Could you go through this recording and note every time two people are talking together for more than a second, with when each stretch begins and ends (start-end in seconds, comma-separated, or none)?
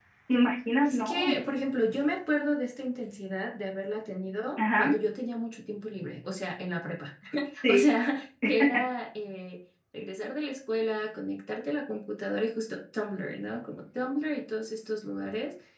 none